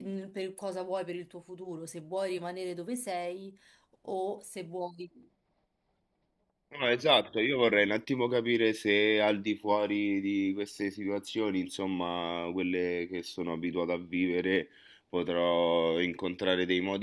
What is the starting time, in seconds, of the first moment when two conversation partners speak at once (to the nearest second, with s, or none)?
none